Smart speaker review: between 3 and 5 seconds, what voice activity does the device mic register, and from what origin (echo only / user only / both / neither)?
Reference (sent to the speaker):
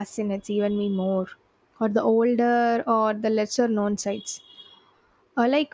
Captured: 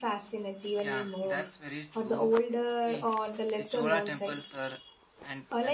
both